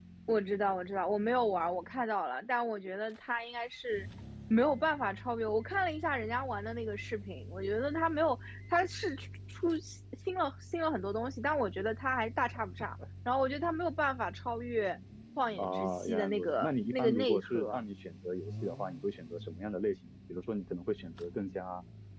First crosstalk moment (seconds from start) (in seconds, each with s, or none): 15.6 s